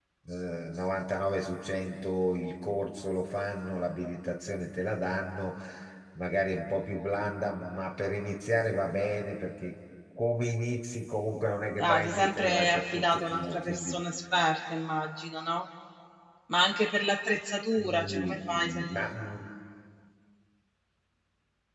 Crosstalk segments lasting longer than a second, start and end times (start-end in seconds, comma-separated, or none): 11.8-14.0, 17.8-19.1